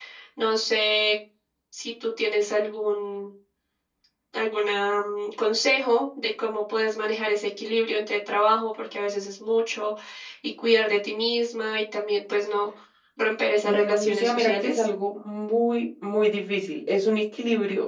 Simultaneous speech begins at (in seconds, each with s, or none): 13.7 s